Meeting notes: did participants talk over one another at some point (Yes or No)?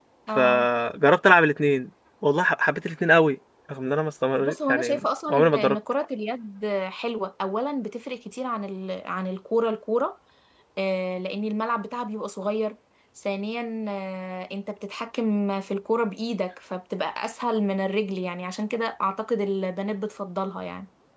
Yes